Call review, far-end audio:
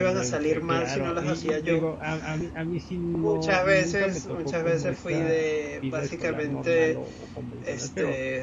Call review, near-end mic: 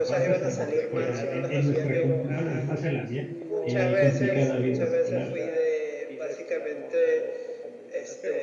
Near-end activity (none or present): present